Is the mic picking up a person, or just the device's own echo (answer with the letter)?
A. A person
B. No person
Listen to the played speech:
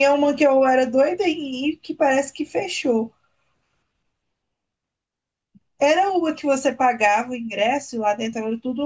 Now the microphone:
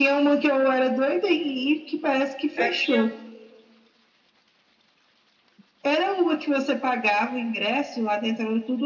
A